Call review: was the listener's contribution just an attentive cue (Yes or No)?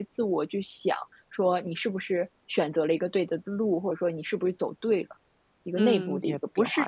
No